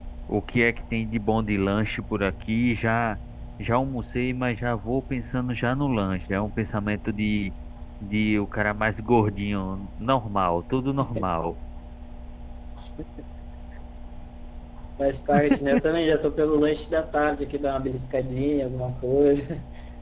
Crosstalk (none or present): none